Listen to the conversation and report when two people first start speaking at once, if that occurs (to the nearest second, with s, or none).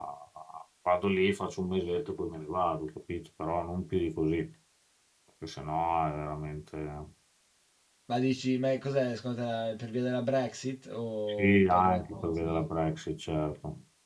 11 s